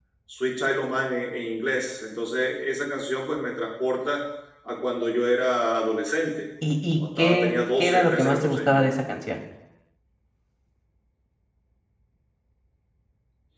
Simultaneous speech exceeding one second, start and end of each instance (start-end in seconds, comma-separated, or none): 7.0-8.9